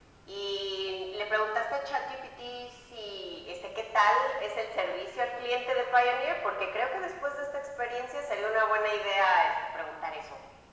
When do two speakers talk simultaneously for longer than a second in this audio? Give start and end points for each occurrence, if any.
none

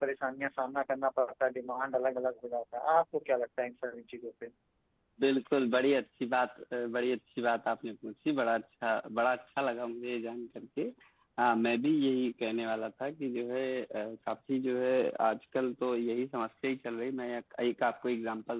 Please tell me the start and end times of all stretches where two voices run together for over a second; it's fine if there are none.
none

